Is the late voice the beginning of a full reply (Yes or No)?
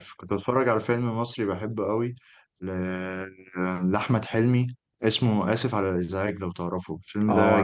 Yes